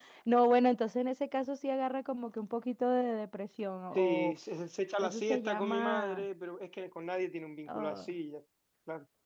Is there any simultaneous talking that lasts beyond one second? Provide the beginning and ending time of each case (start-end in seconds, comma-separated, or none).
5.0-6.2